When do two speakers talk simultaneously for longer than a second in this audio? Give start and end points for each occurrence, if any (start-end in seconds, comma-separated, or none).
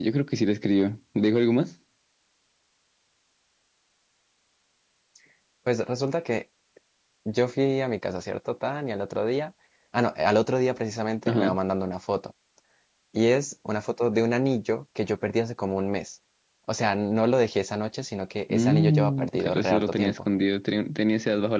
18.5-20.2